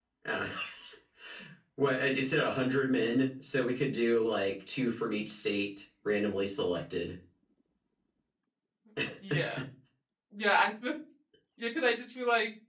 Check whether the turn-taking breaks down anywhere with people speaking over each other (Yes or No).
No